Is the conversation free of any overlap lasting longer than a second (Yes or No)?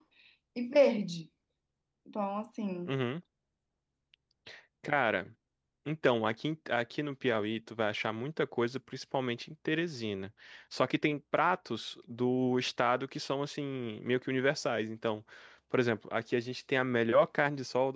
Yes